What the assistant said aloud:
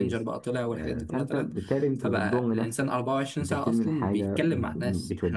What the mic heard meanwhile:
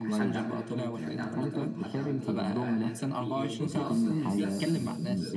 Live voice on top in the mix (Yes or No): No